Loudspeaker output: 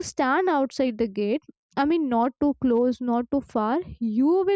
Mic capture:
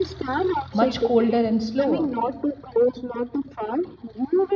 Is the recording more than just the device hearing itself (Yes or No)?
Yes